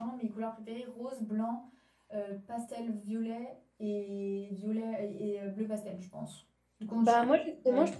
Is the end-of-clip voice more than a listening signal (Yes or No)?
Yes